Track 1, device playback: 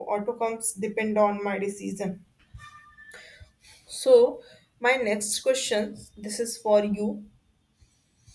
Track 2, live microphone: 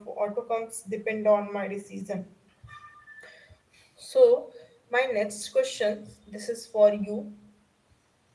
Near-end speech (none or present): none